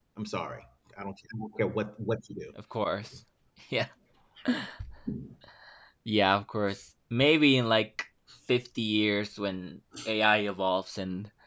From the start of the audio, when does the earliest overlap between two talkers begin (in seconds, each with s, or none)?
none